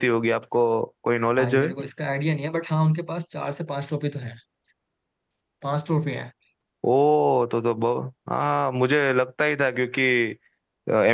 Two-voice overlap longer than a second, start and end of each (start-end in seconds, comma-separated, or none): none